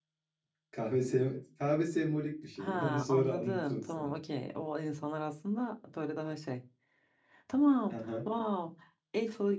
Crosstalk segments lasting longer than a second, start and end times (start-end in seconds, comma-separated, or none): 2.6-4.2